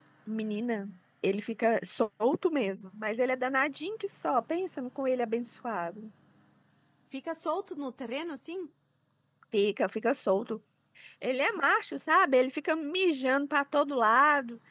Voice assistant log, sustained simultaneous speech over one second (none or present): none